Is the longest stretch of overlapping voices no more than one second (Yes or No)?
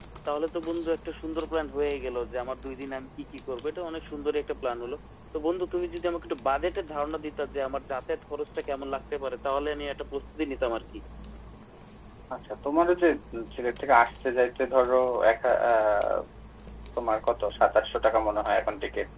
Yes